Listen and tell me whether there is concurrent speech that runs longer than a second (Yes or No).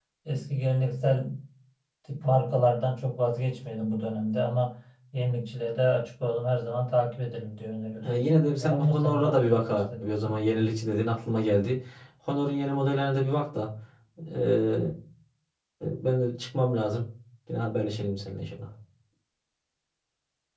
Yes